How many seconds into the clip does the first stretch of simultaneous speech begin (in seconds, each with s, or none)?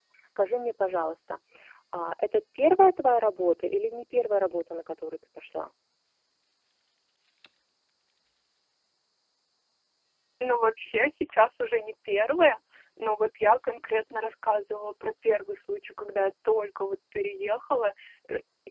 none